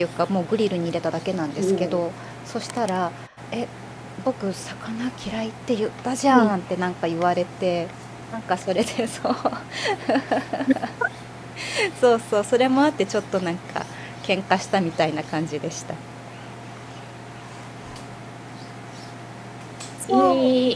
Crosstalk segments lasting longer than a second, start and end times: none

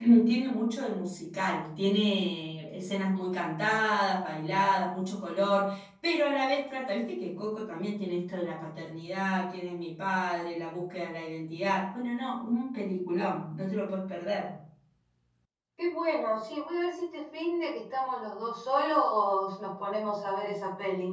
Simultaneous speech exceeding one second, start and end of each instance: none

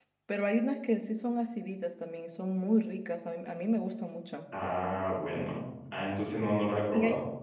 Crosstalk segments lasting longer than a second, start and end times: none

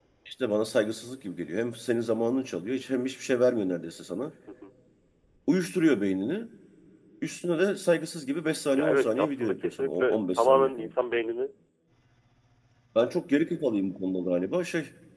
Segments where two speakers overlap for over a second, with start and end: 8.7-10.9

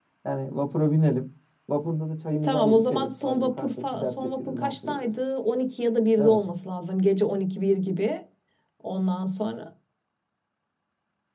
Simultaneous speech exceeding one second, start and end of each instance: 2.4-5.1

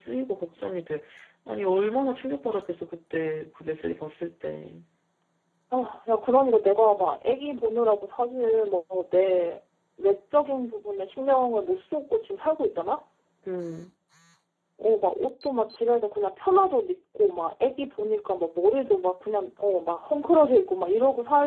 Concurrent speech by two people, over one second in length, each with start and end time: none

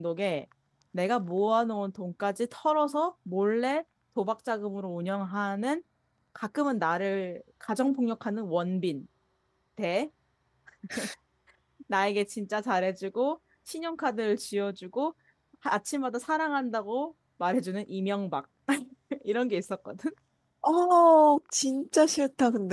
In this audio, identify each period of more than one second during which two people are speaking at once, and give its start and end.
none

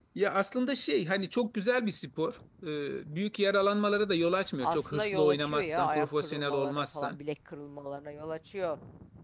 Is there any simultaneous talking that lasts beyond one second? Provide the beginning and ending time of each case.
4.6-7.2

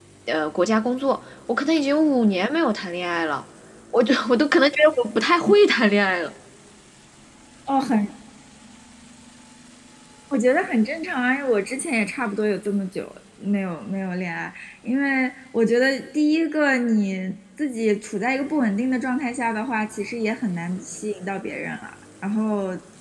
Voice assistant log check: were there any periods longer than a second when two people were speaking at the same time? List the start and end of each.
none

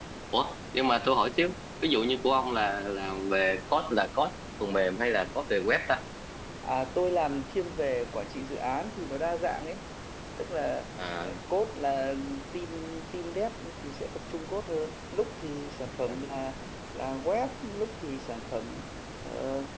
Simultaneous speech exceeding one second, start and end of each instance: none

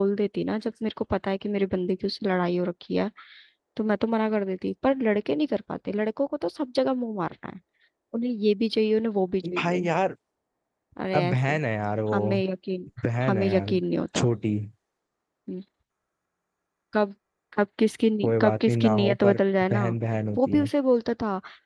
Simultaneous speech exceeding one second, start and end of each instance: 18.2-19.8

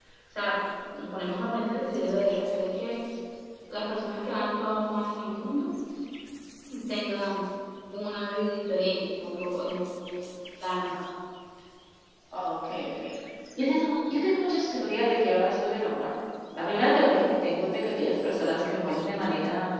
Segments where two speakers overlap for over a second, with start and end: none

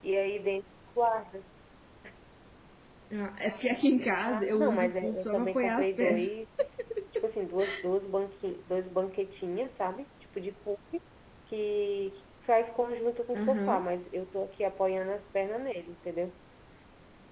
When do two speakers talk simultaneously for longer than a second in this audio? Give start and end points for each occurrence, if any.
4.2-6.3

